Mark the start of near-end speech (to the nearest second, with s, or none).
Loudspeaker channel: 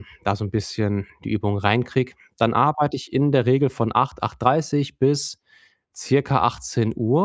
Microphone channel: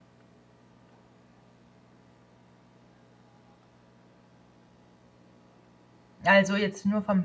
6 s